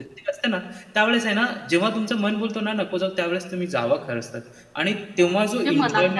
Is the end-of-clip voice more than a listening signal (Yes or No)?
Yes